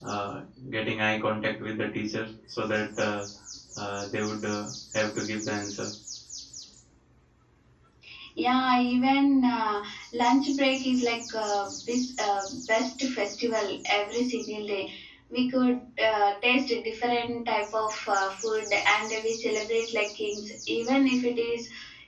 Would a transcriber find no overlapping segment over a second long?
Yes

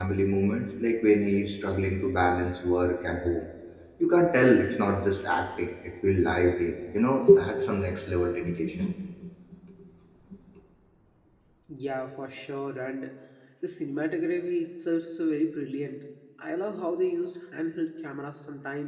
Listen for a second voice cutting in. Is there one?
No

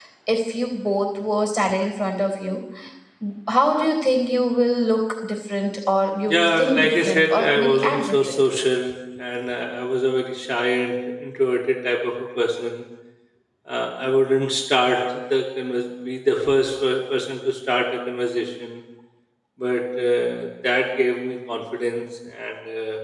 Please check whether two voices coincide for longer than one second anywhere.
Yes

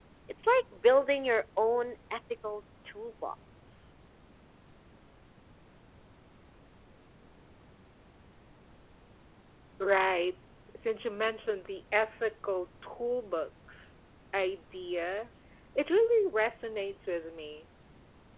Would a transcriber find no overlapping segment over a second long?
Yes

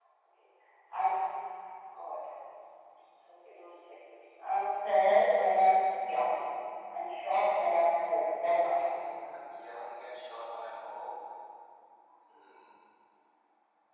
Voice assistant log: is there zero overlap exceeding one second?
Yes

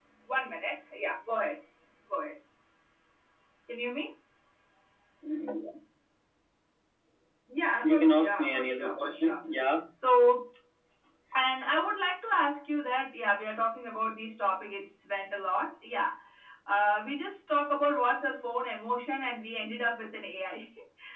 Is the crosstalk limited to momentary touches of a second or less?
No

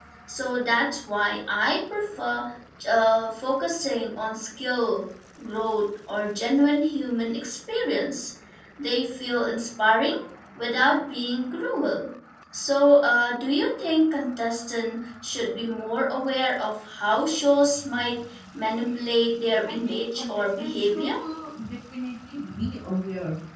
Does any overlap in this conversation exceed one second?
Yes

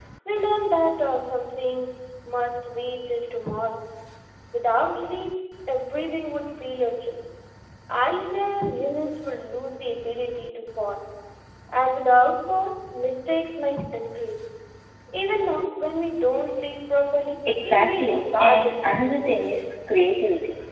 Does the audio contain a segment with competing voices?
Yes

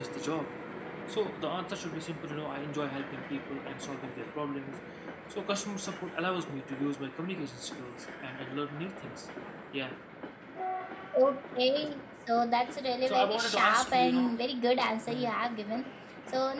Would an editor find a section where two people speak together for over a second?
Yes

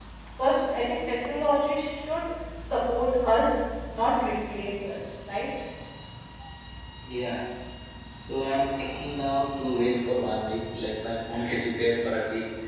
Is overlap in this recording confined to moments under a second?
Yes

